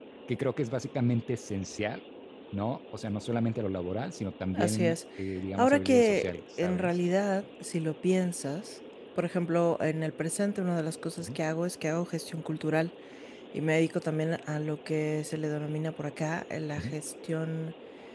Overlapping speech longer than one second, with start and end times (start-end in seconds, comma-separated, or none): 5.6-7.0